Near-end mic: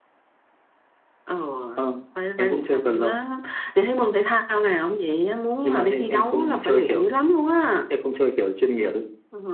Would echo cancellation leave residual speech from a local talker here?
No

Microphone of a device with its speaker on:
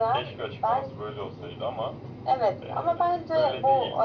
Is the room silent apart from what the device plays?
Yes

